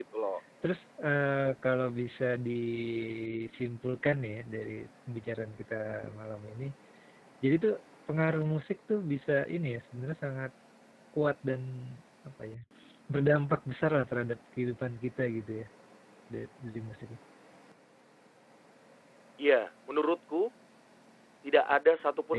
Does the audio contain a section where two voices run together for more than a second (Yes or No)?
No